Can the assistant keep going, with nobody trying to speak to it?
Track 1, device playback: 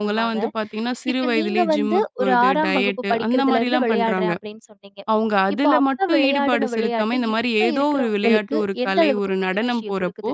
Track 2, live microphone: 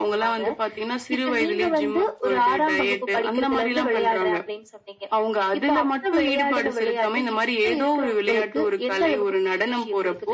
Yes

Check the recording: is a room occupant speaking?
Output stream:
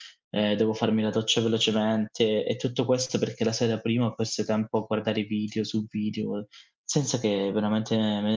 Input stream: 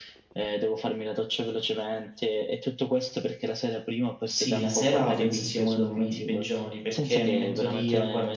Yes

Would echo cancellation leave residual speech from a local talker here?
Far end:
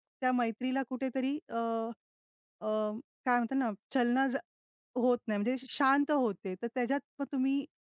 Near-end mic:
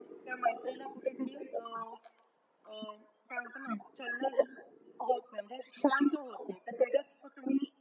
No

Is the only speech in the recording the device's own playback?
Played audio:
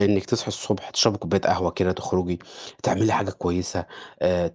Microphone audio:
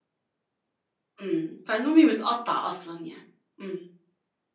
No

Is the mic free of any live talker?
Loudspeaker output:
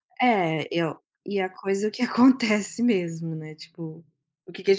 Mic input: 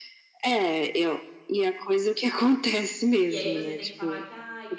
No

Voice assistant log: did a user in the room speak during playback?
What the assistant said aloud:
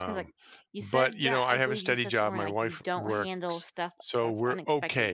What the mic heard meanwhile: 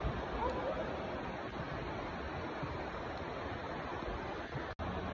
No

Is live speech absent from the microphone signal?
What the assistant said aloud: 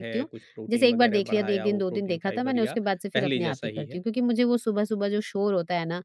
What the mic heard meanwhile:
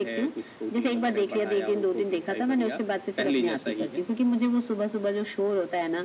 Yes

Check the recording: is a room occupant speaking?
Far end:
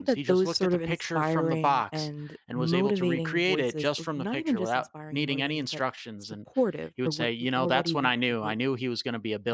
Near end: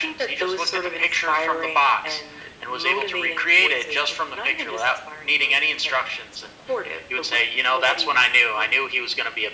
No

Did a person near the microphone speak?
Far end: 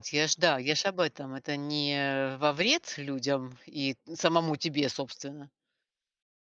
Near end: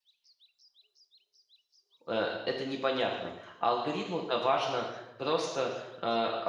Yes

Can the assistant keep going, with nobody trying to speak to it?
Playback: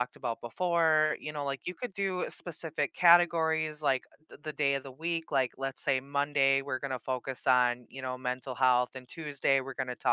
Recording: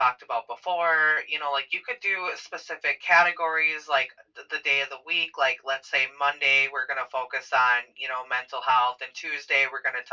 Yes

